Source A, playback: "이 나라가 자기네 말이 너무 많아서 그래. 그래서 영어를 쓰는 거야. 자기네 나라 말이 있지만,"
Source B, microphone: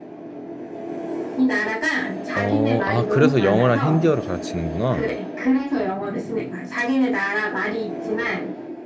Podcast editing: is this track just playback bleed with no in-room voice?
No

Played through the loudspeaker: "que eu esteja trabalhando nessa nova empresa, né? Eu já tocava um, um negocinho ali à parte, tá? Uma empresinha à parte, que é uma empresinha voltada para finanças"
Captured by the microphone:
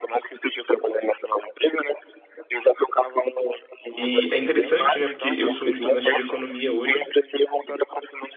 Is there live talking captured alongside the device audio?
Yes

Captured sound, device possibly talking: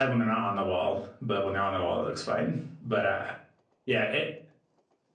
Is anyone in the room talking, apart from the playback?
Yes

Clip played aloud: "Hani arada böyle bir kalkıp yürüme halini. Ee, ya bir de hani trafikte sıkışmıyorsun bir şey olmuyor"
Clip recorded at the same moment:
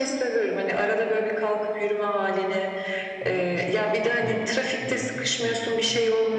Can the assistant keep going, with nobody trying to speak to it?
No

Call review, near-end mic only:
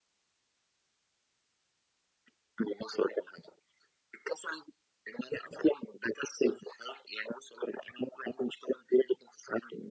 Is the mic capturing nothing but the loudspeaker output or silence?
Yes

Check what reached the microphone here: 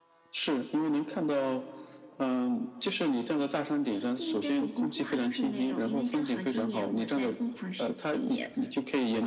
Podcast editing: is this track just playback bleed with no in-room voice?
Yes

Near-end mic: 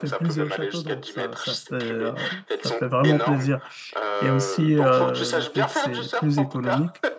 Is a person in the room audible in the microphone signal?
Yes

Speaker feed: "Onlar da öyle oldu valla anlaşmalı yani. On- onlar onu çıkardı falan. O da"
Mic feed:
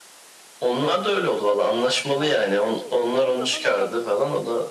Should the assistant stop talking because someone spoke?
Yes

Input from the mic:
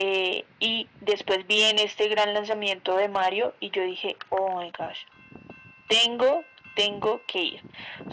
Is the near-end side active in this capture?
No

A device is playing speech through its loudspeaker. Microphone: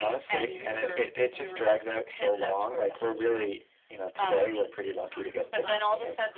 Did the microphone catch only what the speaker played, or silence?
No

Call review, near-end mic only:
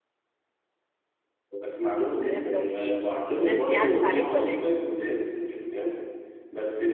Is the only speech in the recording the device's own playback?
No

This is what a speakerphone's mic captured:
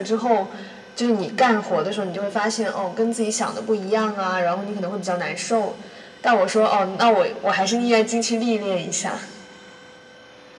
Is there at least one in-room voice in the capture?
No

